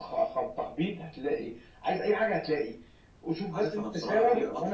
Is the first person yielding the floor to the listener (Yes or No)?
Yes